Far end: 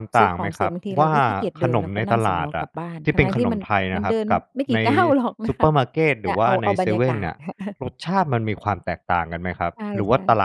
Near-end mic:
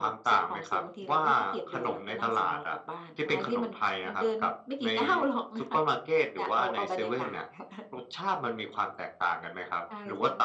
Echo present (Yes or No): Yes